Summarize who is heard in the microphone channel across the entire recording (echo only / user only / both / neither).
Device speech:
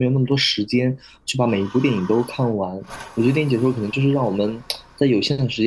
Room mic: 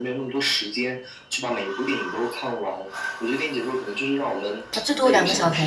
both